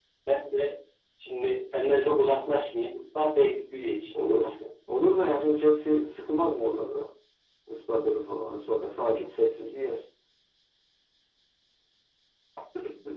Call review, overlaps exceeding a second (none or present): none